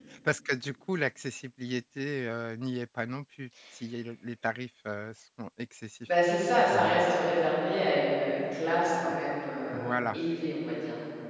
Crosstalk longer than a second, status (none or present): none